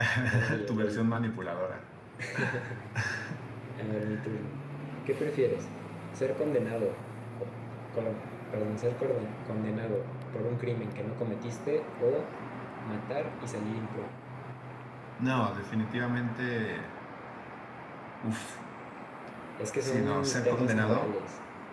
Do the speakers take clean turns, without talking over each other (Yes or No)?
No